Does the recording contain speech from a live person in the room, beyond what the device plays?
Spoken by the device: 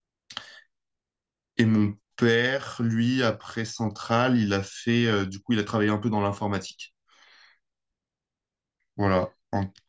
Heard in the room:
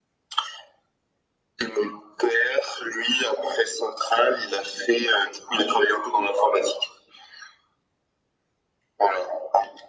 No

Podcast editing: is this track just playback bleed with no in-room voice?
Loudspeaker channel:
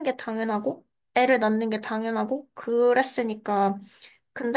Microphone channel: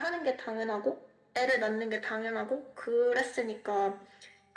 Yes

